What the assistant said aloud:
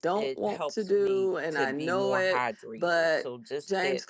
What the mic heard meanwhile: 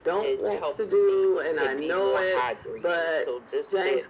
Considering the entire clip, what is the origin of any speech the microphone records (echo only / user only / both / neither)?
echo only